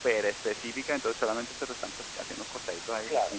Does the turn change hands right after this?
Yes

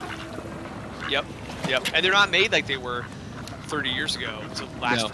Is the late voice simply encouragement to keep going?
Yes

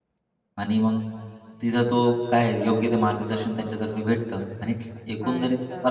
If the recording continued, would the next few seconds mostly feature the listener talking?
Yes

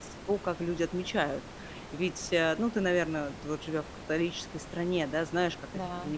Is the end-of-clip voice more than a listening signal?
No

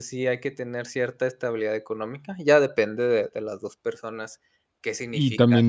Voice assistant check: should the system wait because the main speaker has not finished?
No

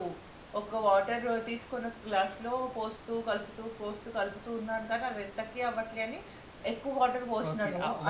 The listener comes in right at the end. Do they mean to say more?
Yes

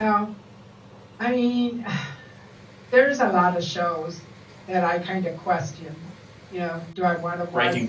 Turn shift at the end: No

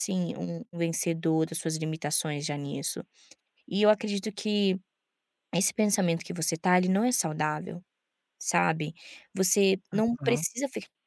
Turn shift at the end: No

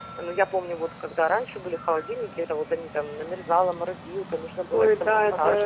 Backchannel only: No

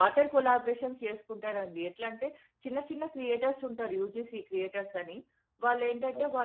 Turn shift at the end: No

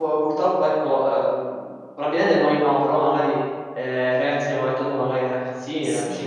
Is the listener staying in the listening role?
Yes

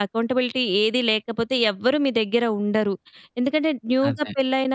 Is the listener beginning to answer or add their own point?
No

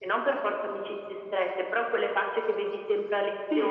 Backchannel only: No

